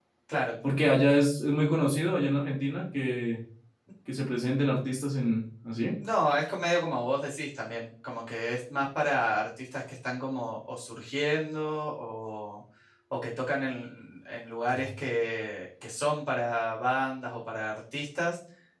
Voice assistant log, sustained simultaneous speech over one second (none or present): none